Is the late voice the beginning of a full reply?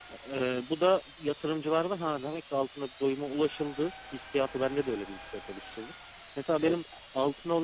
No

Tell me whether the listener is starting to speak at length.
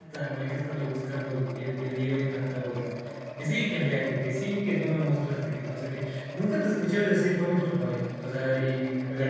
Yes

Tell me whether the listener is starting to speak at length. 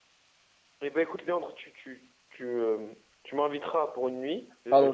No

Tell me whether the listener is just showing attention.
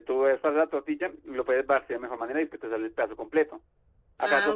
Yes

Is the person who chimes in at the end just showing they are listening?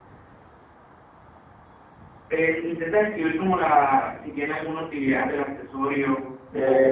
No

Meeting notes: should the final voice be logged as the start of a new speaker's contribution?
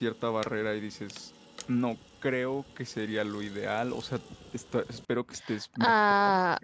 Yes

